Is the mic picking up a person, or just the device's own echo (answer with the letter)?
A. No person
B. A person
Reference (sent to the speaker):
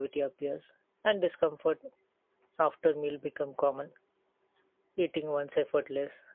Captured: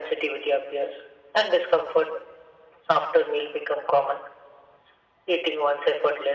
A